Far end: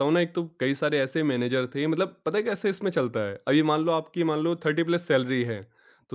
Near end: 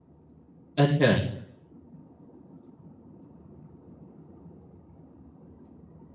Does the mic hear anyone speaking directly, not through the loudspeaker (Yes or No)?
Yes